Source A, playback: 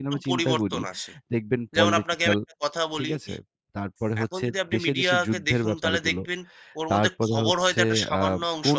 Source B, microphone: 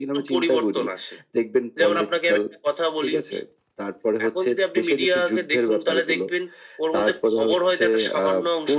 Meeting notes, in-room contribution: none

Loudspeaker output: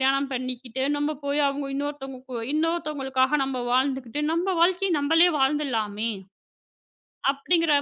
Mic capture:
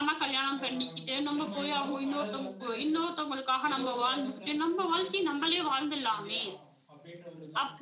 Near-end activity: present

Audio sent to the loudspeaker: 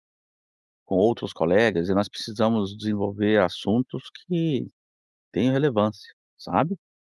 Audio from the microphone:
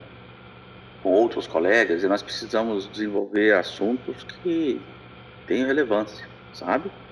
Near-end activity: none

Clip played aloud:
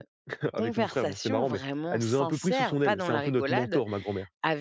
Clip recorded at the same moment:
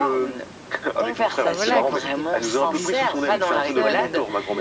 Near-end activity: present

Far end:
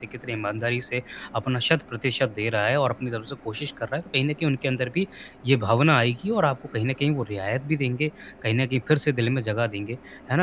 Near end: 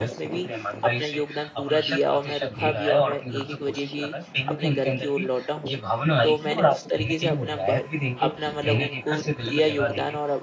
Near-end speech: present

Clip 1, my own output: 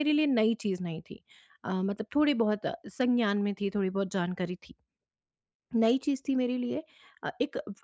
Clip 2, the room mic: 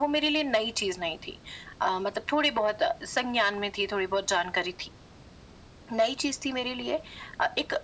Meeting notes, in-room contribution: none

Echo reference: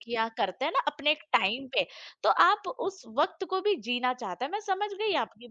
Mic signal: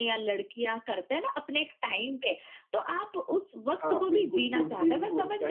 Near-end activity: present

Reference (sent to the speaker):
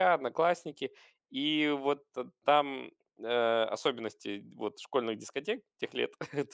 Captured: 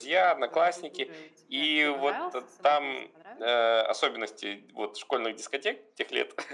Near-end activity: present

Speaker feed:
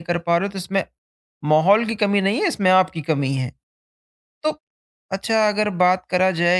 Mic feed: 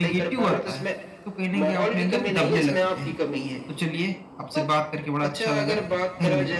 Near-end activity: present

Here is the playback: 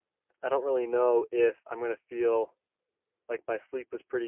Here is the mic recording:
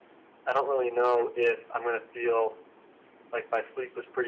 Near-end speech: none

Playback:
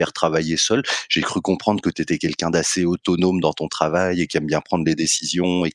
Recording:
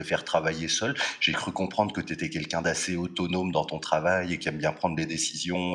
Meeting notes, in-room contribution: none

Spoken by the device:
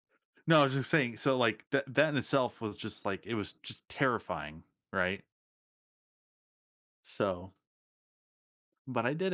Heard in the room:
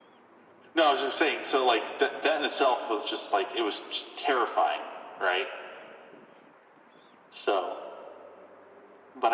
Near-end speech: none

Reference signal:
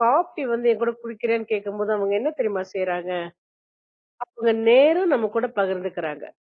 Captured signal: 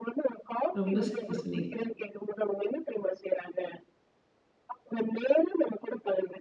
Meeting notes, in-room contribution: present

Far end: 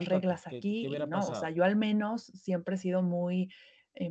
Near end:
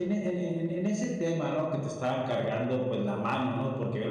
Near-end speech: present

